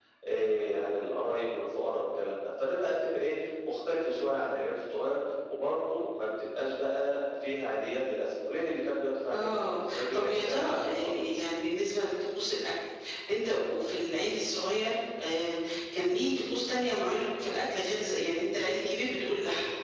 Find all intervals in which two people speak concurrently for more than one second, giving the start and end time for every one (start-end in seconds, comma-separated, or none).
9.3-11.4